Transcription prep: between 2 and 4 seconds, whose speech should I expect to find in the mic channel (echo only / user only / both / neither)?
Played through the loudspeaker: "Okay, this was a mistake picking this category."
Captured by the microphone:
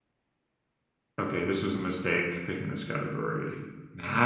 echo only